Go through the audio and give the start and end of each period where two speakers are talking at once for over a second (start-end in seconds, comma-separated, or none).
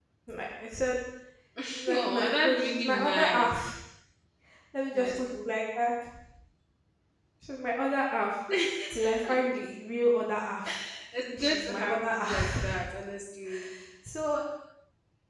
1.9-3.5, 11.4-12.7